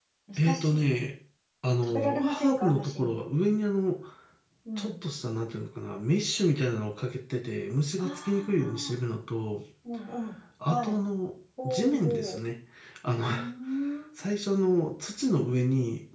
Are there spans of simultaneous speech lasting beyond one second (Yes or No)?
Yes